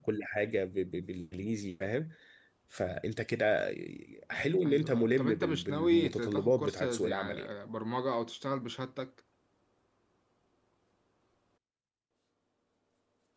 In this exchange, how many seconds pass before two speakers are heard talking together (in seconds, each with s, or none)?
4.6 s